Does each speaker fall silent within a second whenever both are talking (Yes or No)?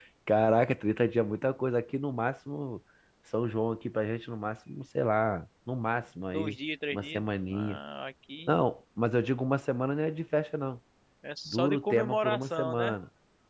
No